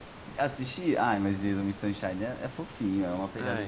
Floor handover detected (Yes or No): Yes